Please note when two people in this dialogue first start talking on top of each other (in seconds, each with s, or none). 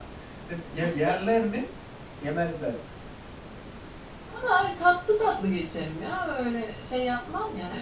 none